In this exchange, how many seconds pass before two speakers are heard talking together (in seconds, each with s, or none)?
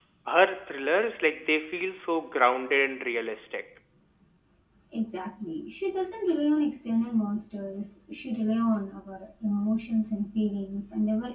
none